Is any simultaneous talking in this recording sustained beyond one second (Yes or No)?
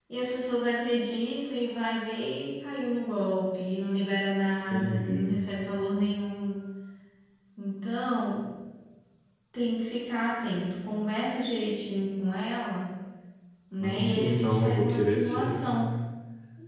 Yes